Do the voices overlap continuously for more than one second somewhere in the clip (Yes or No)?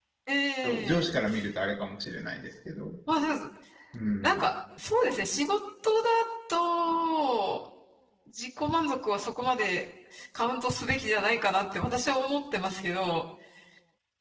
No